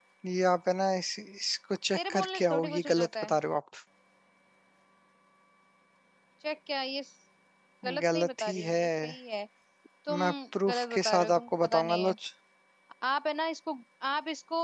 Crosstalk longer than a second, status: present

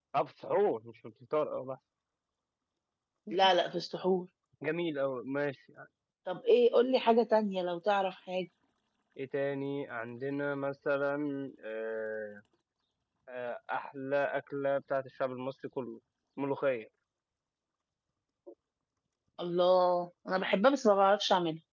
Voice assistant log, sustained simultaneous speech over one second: none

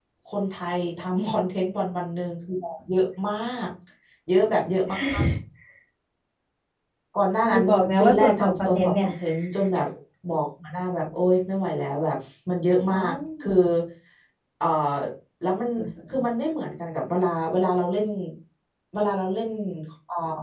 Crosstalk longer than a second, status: present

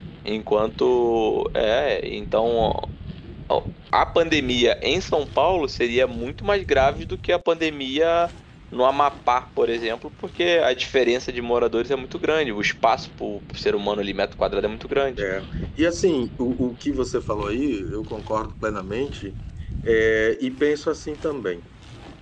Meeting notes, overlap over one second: none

